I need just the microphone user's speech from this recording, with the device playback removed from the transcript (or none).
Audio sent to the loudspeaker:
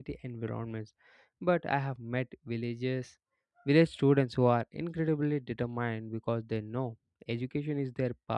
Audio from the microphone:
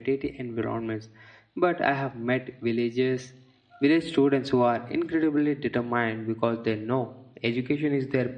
none